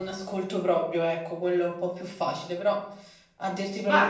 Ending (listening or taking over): taking over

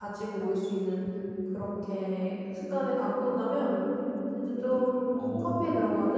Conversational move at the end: listening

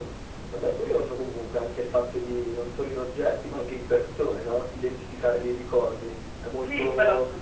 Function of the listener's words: taking over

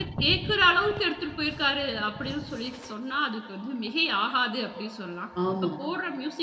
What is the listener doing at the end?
listening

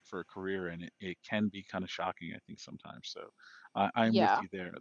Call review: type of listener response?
listening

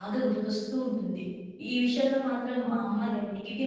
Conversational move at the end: listening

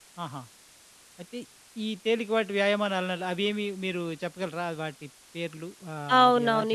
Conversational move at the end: taking over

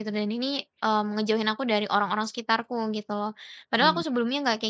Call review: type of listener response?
listening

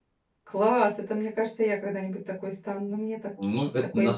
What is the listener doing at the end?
taking over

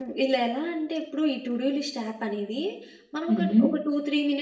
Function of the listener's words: listening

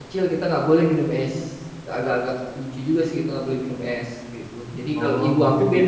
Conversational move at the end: taking over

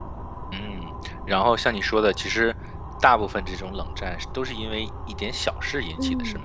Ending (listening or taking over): taking over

